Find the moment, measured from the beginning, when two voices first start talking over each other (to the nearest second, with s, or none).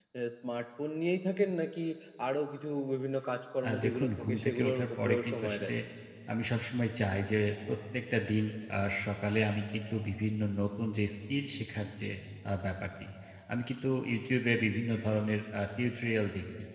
4 s